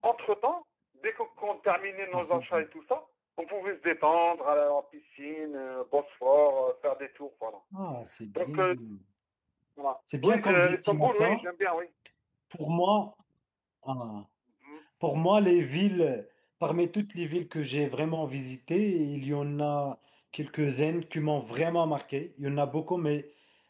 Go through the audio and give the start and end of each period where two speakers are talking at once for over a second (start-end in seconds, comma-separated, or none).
10.2-11.4